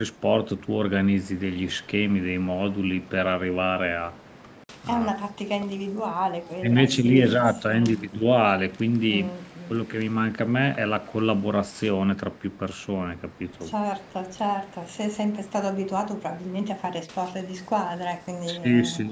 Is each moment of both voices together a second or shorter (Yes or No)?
No